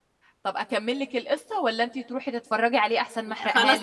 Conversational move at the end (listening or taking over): taking over